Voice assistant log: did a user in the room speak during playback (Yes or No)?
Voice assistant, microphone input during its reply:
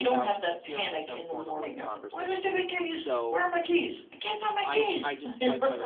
Yes